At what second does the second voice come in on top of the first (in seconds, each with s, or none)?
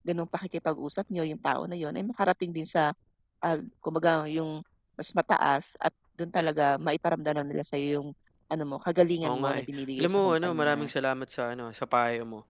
9.2 s